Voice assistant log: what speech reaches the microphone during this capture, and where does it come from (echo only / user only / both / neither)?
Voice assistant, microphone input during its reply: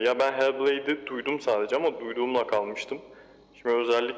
echo only